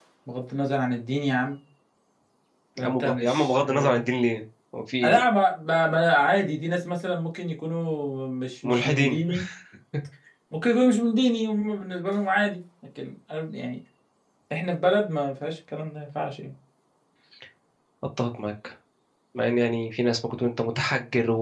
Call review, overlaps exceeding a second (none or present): present